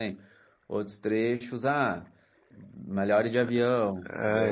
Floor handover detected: Yes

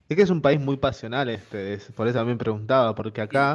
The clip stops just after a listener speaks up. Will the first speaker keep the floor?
No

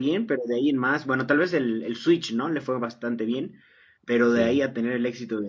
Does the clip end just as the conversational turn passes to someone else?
No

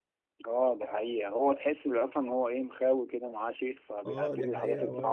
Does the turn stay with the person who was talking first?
No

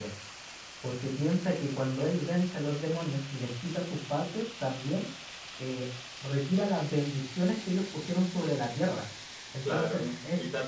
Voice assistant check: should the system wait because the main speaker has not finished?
No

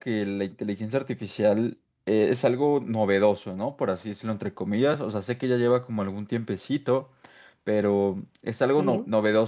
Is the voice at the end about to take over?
No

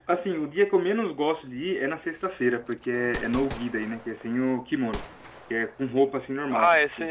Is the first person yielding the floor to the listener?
Yes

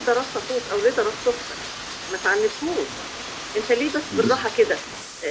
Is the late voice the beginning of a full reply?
No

